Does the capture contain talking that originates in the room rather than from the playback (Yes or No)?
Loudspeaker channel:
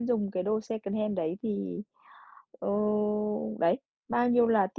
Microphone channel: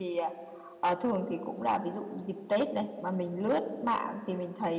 Yes